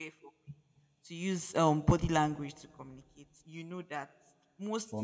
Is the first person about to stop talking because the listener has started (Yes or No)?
No